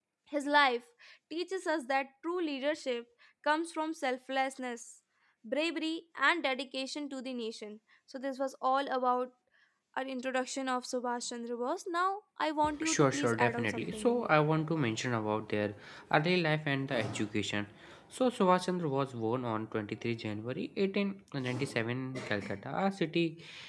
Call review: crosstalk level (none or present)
present